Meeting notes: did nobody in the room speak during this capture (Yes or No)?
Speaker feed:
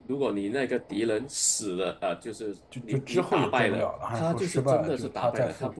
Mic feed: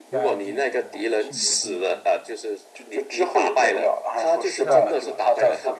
No